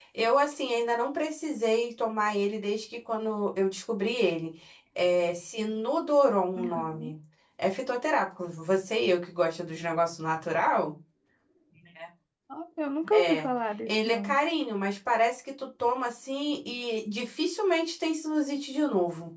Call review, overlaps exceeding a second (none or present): none